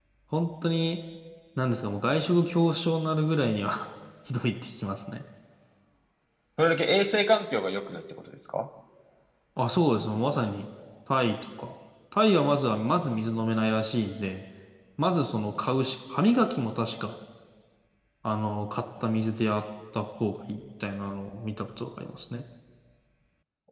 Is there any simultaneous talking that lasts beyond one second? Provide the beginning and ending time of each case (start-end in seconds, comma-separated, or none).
none